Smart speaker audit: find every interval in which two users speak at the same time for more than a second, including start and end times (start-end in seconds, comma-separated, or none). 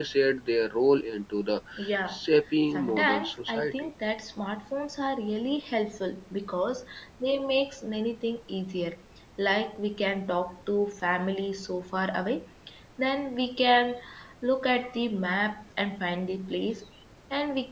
2.7-3.9